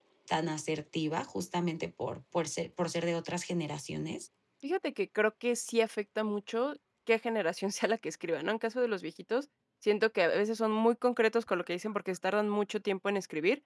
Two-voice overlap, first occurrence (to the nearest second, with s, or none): none